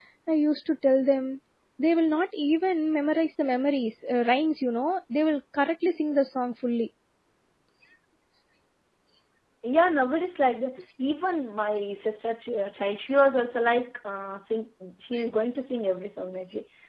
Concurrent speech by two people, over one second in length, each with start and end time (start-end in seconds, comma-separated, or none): none